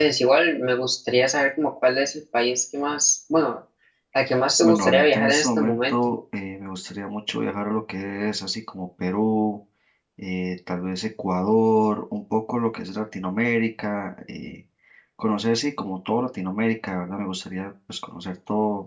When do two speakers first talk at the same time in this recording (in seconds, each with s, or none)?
4.6 s